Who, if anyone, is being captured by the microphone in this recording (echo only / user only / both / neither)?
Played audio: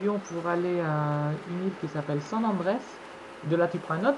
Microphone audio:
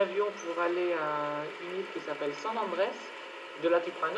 echo only